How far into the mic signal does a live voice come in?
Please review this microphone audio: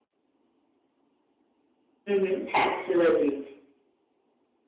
2 s

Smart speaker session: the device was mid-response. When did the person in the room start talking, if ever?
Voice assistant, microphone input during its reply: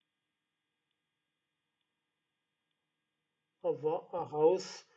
4 s

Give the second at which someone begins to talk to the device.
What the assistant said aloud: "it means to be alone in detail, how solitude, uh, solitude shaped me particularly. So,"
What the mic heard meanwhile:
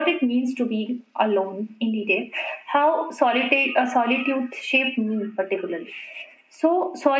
none

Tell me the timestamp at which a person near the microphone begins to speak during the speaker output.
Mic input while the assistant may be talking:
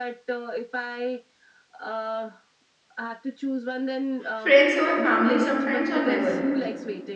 4 s

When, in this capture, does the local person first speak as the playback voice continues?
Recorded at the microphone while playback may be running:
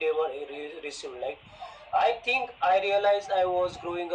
none

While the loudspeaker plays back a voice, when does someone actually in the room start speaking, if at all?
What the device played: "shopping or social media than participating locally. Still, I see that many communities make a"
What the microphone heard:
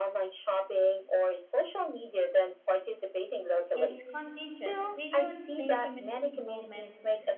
4 s

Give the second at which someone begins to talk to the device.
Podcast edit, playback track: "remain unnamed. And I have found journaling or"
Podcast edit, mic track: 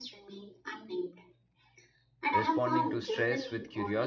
2 s

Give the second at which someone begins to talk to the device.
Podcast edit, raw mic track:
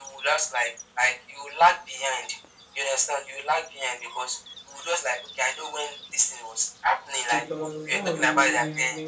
7 s

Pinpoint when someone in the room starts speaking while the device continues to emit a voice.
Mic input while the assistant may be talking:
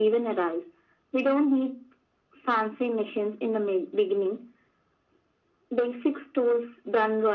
none

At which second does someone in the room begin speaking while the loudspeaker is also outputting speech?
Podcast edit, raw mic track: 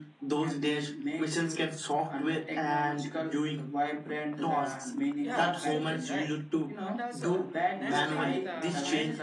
5 s

